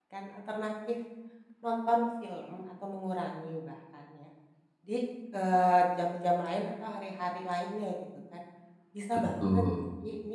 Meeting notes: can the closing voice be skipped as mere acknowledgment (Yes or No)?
Yes